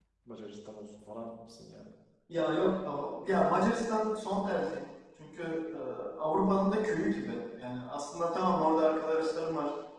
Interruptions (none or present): none